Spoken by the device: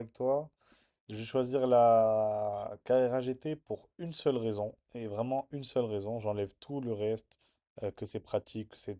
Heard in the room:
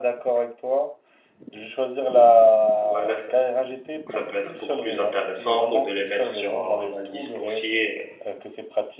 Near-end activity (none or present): present